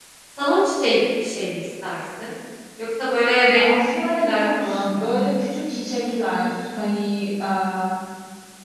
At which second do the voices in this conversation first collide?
3.5 s

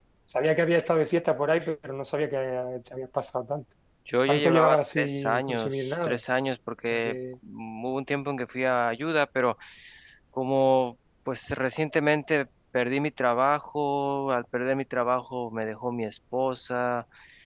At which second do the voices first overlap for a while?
4.3 s

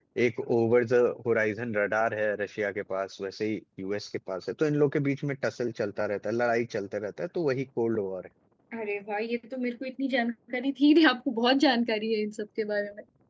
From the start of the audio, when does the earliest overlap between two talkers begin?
none

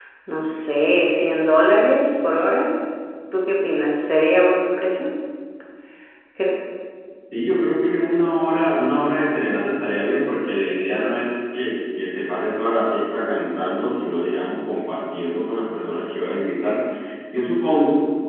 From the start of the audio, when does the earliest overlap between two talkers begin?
none

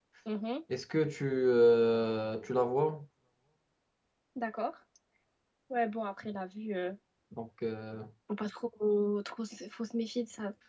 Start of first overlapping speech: none

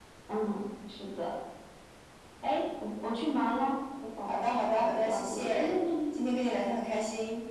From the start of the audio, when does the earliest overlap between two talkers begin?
4.3 s

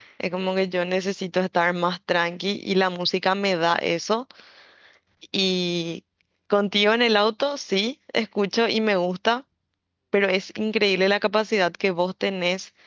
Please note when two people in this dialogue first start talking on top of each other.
none

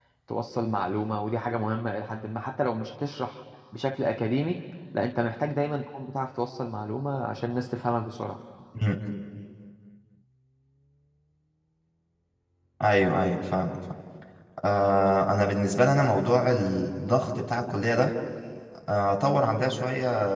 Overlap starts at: none

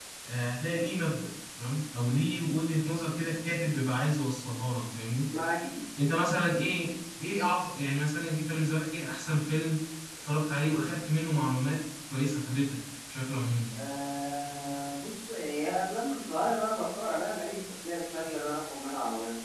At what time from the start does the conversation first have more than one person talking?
none

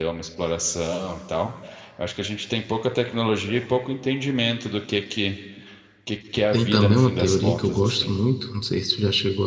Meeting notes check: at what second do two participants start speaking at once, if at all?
6.5 s

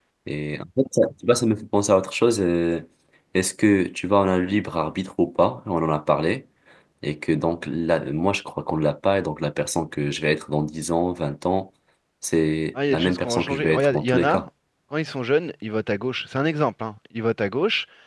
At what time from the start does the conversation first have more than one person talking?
12.9 s

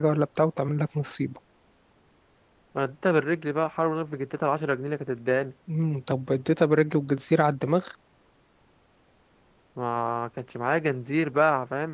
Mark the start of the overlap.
none

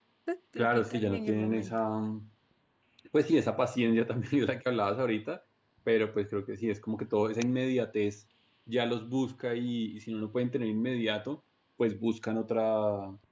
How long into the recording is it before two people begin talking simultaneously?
0.6 s

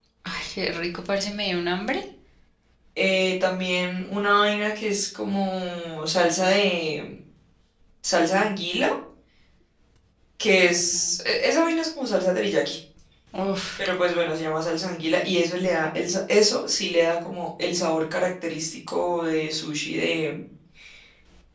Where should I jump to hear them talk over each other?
none

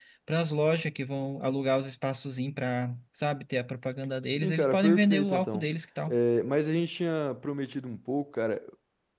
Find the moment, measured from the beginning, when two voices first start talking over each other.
4.3 s

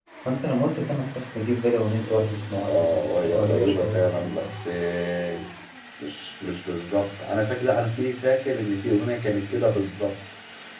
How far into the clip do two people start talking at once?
2.6 s

